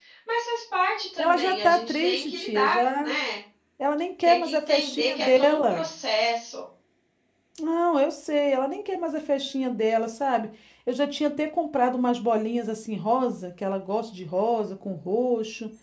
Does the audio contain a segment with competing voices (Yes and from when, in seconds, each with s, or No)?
Yes, from 1.2 s